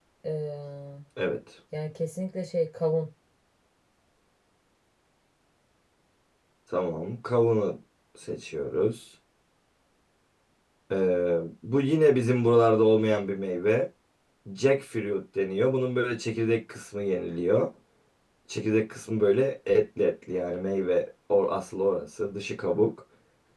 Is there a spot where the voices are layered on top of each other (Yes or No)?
No